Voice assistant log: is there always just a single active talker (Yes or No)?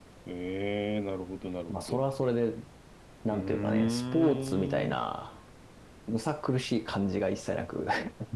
No